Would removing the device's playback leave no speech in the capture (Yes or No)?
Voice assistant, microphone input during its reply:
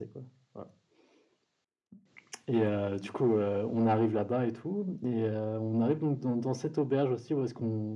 Yes